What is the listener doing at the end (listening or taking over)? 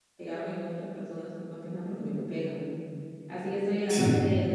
listening